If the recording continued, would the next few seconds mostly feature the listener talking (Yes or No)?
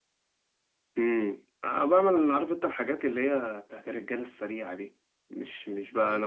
No